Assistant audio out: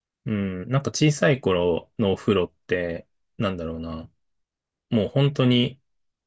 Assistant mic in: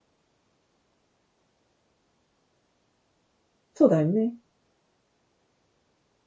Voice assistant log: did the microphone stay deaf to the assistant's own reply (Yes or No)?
Yes